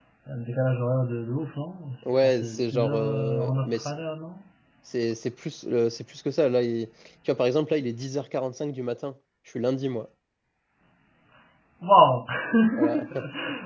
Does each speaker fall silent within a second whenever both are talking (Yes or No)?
No